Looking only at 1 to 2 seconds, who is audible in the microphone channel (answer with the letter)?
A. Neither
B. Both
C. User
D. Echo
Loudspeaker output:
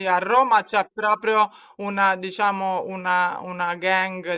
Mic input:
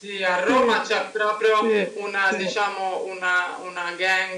B